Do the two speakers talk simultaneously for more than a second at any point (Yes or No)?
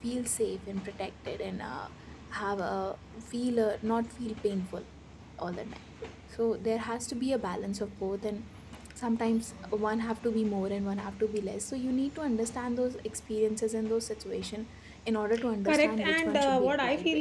Yes